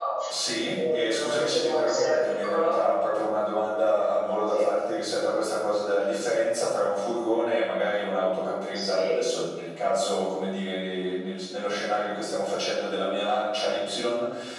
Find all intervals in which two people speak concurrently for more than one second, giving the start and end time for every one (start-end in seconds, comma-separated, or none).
0.9-2.8